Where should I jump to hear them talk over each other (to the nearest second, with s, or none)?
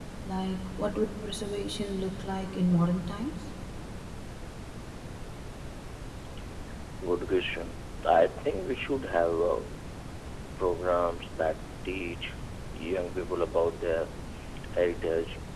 none